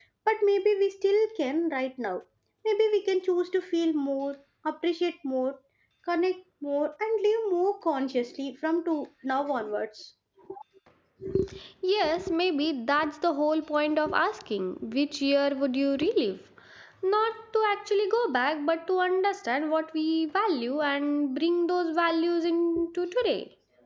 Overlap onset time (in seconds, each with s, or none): none